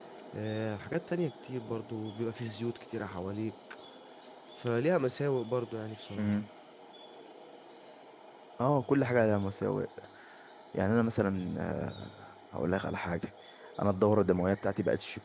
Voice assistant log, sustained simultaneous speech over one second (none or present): none